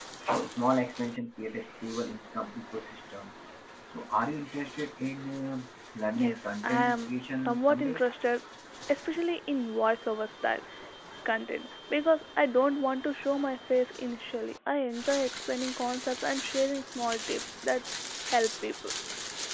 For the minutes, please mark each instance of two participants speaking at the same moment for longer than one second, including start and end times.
6.2-8.0

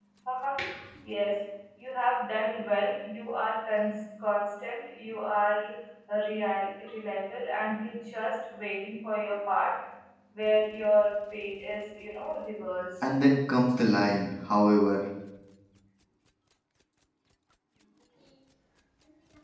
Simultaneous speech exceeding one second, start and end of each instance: none

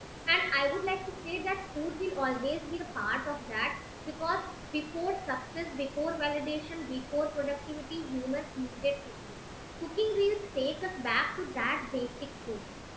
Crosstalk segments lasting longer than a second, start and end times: none

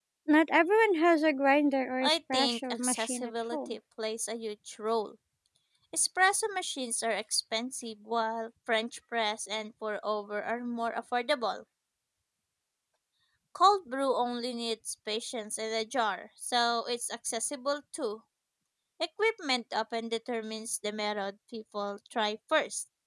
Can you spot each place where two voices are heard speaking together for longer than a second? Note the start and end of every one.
2.0-3.8

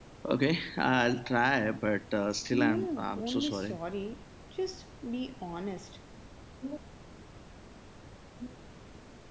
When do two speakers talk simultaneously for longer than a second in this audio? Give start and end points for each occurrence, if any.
2.5-3.8

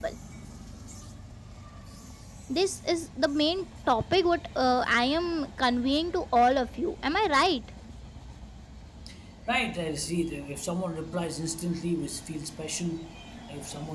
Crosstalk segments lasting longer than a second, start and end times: none

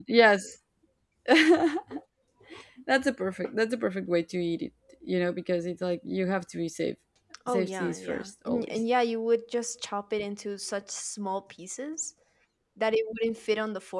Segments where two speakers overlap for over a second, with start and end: 7.5-8.8

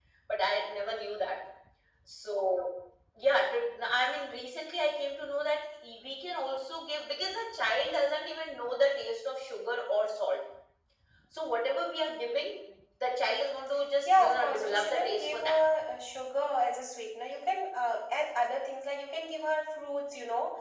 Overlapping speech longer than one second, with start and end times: 14.0-15.6

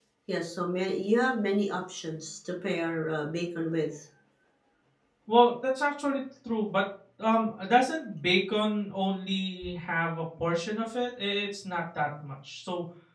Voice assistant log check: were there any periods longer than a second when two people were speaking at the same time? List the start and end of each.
none

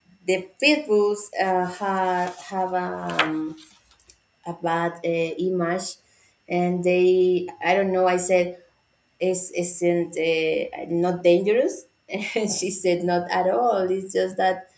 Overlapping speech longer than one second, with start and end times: none

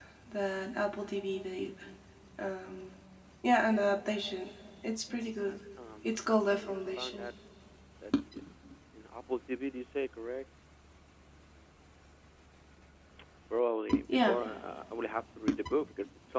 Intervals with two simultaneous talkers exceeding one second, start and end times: 6.0-7.3

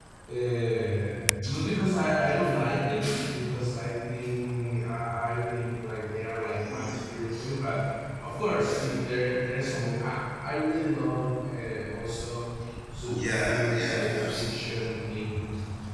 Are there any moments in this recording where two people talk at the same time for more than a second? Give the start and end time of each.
13.1-14.6

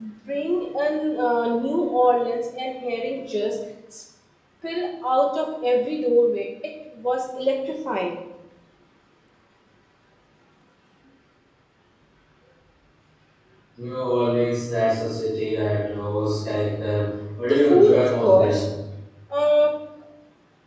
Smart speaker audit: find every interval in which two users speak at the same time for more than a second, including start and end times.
17.4-18.6

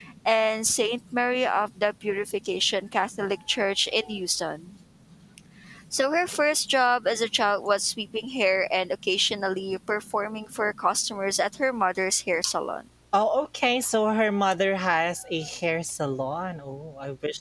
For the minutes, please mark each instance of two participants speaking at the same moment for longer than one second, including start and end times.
none

